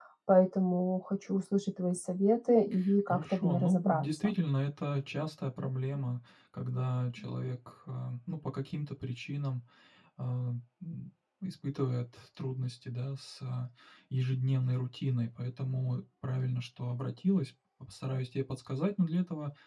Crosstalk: present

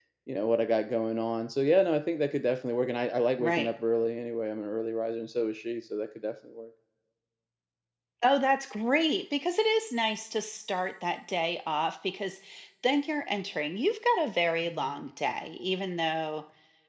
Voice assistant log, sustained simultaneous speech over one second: none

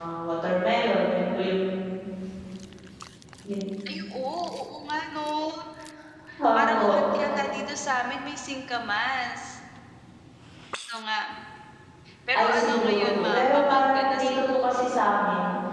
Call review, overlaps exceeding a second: present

